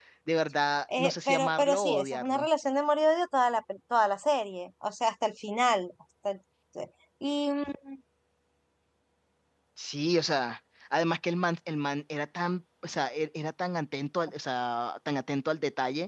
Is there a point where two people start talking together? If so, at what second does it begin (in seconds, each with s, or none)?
1.0 s